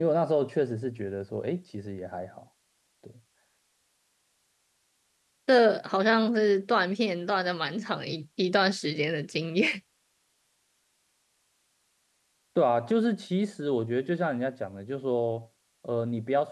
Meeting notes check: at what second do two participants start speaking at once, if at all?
none

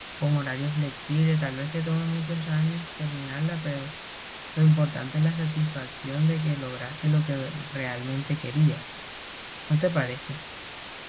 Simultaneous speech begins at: none

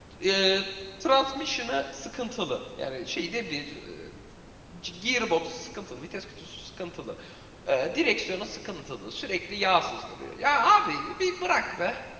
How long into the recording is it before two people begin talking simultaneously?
none

